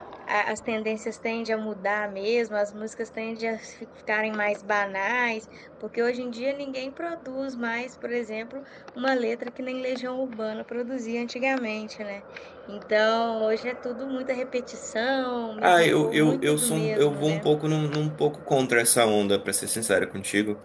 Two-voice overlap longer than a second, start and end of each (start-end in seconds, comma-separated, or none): 15.6-17.4